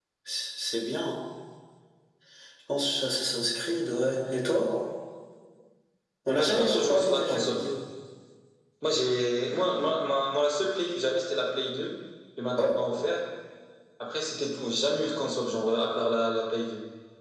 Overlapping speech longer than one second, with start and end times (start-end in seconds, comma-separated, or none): 6.3-7.6